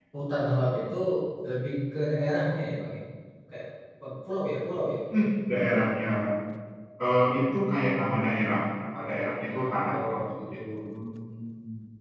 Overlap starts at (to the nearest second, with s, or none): 9 s